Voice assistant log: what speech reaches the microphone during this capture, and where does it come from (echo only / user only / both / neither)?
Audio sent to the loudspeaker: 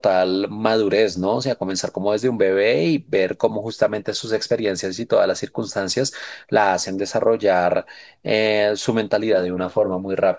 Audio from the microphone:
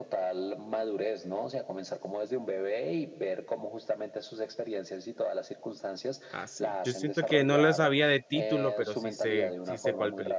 both